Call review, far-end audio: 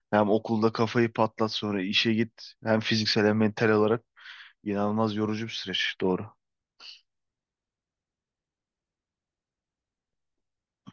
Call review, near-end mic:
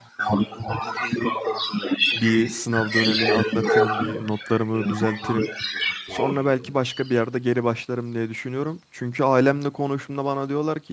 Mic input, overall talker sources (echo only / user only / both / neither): both